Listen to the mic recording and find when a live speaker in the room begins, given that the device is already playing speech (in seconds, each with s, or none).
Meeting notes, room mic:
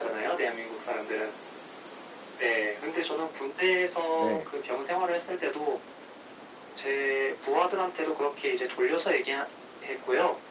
4.1 s